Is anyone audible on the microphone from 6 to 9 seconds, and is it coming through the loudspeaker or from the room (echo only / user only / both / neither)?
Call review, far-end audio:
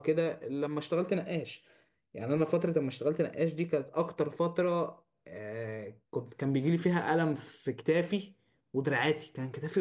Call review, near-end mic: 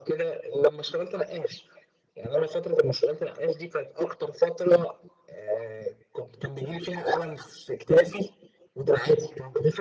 echo only